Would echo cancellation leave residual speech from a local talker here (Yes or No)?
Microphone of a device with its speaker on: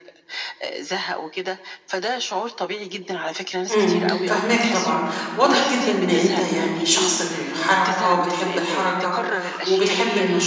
Yes